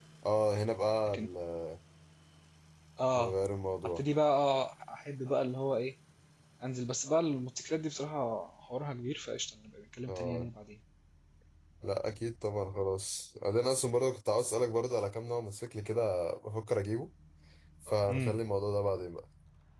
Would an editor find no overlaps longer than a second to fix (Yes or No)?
Yes